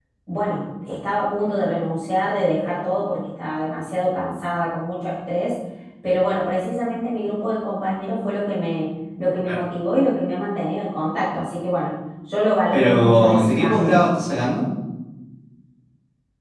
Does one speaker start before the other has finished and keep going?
Yes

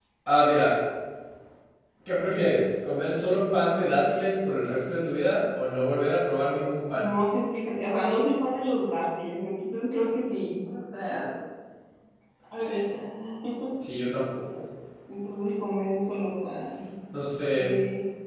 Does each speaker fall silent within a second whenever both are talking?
Yes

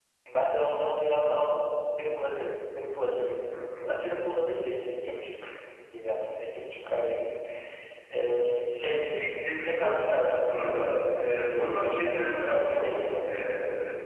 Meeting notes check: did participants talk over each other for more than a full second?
Yes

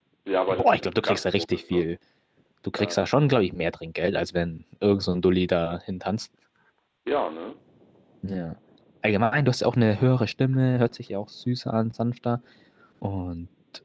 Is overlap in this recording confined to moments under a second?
No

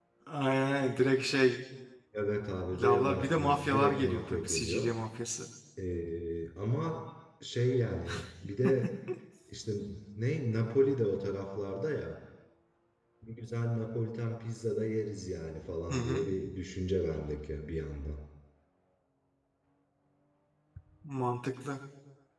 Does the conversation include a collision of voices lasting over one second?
Yes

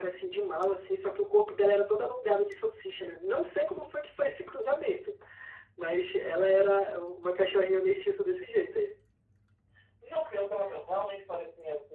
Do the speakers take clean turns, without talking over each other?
Yes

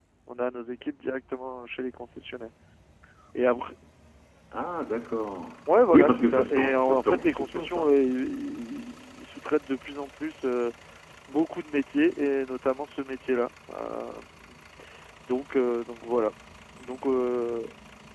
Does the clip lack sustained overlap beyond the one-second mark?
No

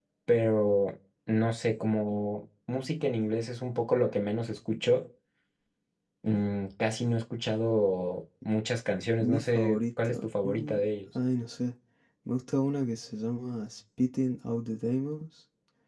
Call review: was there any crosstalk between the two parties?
Yes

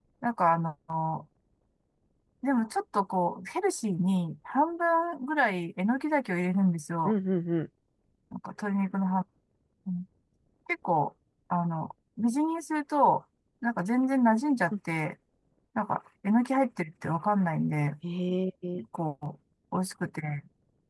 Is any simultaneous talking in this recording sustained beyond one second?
No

